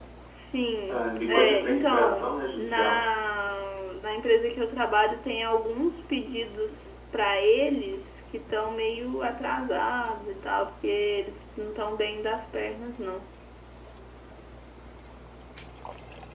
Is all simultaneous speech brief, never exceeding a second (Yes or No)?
No